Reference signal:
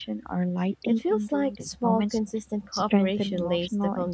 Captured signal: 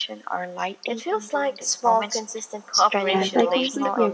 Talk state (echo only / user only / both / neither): both